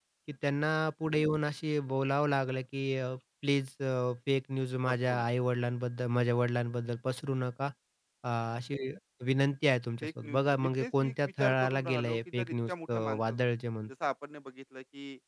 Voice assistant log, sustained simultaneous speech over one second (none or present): present